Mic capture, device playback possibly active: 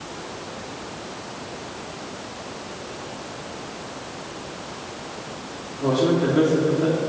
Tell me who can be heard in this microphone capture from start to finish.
user only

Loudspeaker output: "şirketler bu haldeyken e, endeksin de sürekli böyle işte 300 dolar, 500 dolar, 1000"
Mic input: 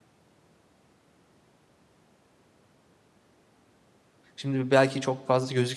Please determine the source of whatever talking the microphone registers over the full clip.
user only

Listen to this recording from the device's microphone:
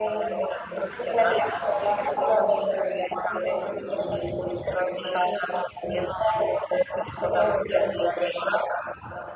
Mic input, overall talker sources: echo only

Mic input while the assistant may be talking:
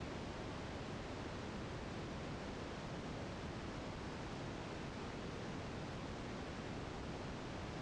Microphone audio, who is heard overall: neither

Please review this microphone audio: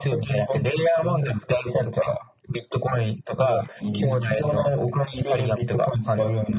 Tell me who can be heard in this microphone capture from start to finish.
both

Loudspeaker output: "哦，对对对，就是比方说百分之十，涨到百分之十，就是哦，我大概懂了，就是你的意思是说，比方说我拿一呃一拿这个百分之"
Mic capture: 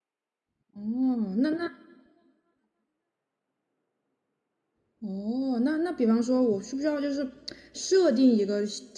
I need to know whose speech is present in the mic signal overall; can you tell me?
user only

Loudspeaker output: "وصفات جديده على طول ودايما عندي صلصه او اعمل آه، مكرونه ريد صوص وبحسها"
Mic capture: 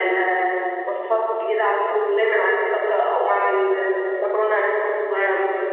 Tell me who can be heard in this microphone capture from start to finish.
echo only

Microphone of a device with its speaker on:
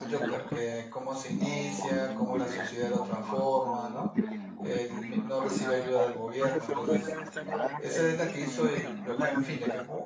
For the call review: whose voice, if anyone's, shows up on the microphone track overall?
both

